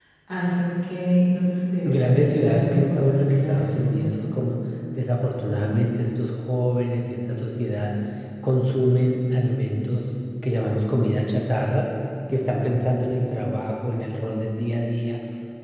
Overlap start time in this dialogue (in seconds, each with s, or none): 1.8 s